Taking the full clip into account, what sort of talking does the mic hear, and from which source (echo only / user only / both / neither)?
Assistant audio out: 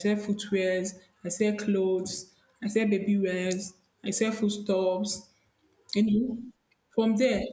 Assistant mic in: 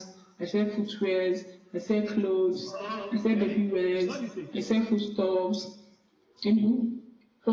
both